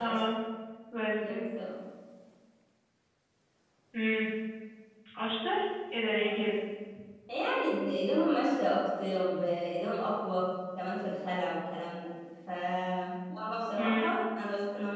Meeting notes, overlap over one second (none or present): none